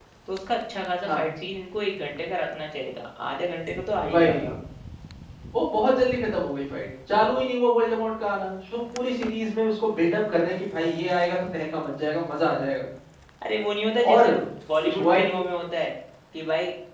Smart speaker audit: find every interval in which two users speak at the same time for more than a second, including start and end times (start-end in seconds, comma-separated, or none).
none